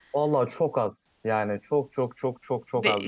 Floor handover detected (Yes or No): Yes